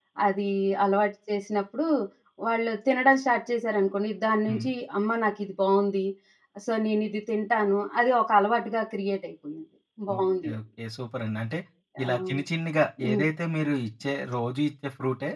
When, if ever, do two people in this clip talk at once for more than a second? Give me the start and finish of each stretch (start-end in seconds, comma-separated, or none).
none